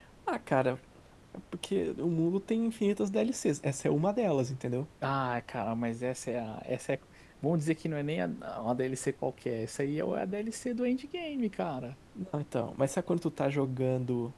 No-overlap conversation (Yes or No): Yes